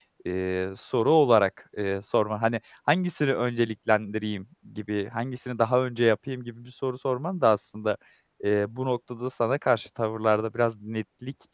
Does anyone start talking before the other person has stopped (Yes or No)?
No